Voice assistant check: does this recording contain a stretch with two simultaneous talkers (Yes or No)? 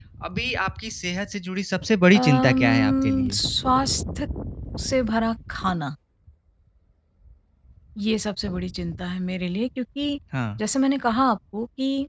Yes